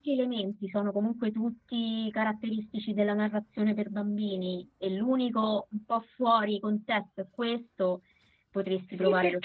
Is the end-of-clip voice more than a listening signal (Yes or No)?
Yes